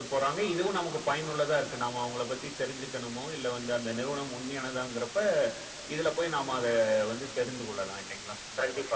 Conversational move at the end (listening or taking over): taking over